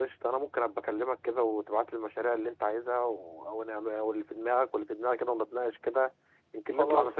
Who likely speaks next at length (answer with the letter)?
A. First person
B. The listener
B